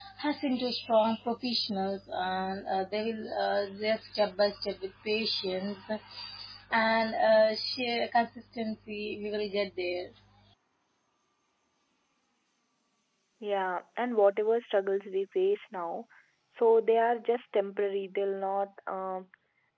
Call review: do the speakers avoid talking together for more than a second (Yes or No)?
Yes